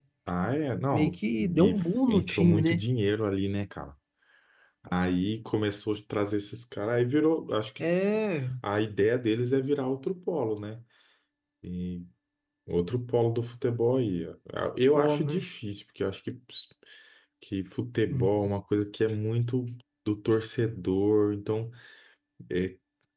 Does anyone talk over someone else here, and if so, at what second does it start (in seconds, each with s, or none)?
0.9 s